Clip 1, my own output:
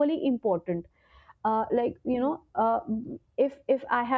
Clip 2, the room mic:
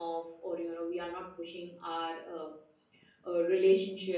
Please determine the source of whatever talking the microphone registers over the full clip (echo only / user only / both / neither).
user only